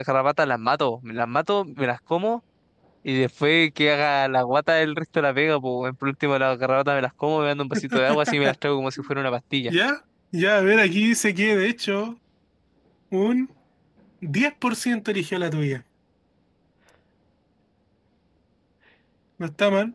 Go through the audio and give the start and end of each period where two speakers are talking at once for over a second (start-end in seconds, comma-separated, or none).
none